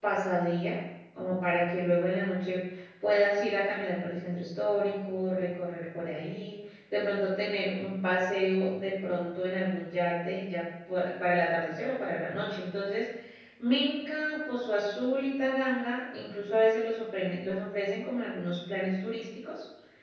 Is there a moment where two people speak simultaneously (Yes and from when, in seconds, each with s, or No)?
No